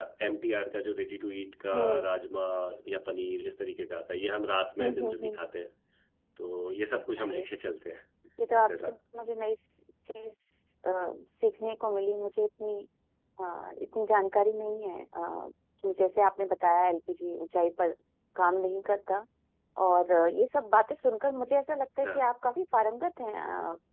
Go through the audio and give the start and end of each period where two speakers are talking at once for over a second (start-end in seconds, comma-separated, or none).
none